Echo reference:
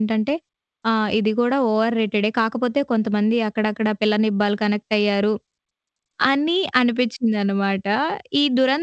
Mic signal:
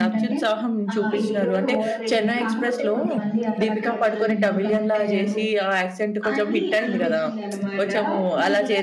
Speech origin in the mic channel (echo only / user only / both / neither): both